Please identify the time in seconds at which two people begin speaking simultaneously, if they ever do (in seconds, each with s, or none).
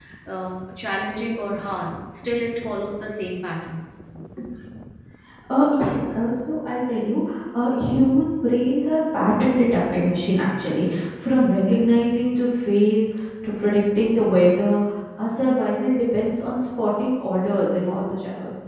none